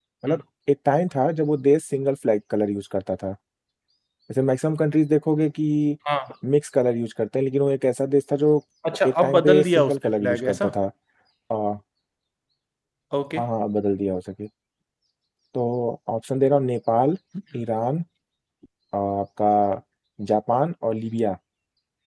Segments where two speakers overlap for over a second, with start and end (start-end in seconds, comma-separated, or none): 9.0-10.7